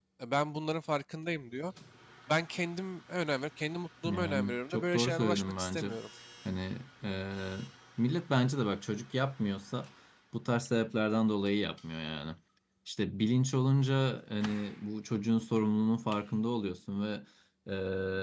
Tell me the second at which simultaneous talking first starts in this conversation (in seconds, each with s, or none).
4.0 s